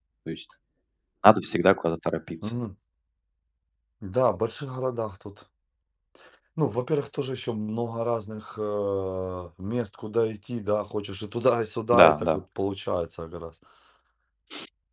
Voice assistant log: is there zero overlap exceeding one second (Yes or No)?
Yes